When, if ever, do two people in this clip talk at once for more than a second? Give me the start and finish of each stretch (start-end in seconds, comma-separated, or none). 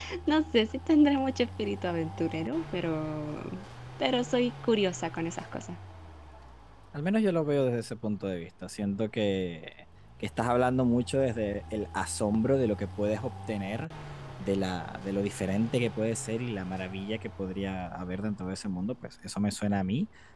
none